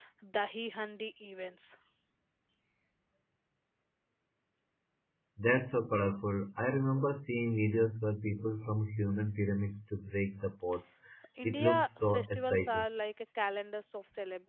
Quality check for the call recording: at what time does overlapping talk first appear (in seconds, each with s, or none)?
11.4 s